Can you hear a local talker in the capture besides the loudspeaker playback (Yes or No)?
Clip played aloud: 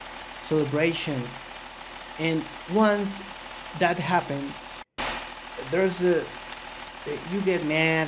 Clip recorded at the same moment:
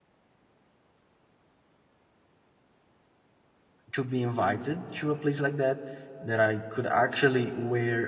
Yes